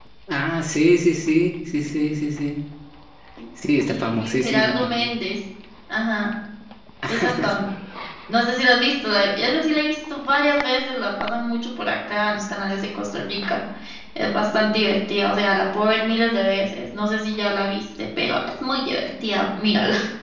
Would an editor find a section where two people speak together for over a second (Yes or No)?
Yes